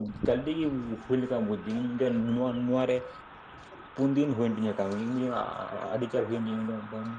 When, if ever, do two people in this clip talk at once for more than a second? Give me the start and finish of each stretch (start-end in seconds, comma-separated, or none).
none